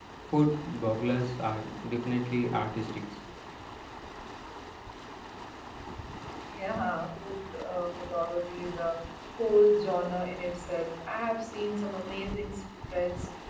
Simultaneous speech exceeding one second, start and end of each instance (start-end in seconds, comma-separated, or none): none